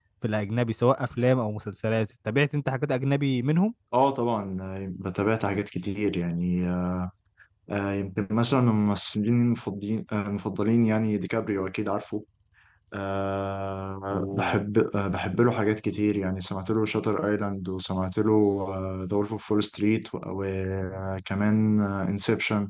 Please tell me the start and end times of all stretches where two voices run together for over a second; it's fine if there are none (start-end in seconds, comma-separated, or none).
none